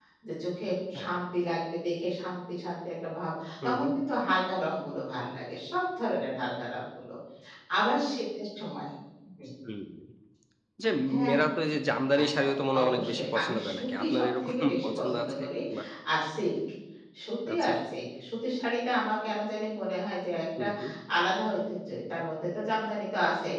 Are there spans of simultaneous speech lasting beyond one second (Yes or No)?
Yes